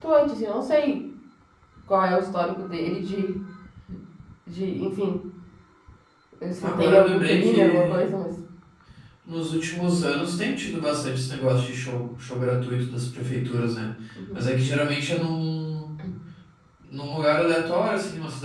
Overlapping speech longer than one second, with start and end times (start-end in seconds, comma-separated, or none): 6.6-8.1